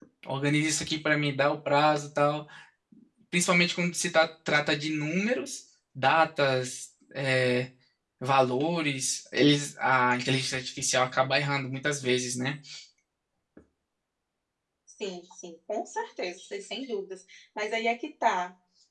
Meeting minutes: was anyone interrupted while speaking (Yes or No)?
No